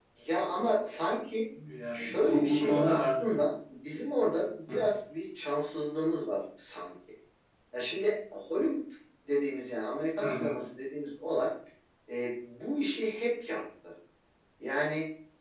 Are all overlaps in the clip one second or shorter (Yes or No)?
No